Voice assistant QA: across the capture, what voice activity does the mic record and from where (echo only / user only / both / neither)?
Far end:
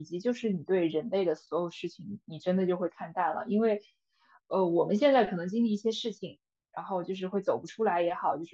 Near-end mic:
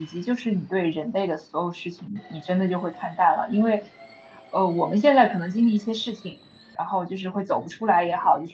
echo only